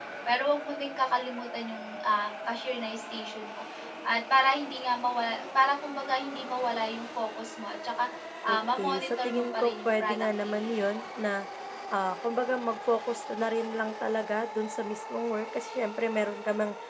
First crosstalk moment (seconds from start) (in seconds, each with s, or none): 8.5 s